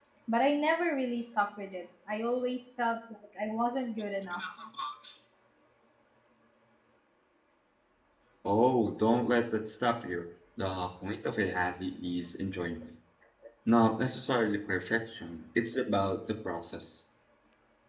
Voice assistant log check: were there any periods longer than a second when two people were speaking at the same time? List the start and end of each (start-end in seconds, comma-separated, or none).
none